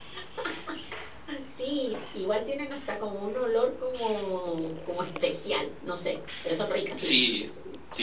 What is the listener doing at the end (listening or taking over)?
taking over